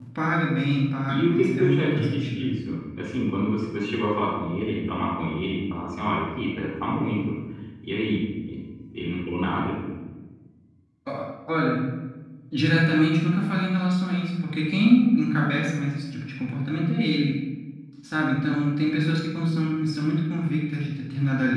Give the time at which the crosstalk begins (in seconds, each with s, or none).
1.1 s